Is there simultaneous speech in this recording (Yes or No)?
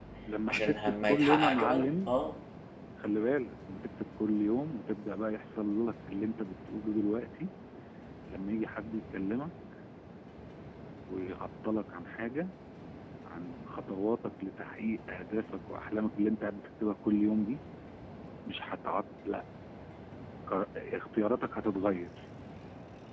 Yes